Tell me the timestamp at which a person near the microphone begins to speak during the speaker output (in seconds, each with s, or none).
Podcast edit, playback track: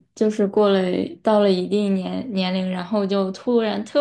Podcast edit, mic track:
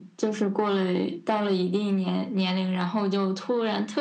none